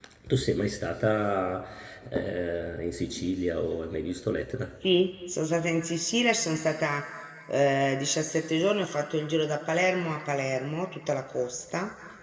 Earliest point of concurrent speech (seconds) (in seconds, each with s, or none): none